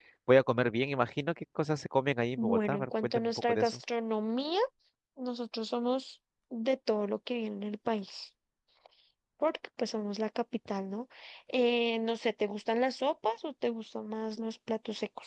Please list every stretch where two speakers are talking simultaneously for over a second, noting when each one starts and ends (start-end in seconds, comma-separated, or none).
2.4-3.8